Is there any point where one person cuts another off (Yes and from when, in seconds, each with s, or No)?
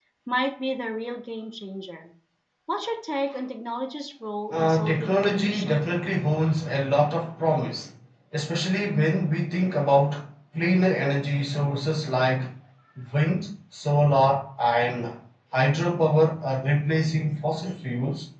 Yes, from 4.5 s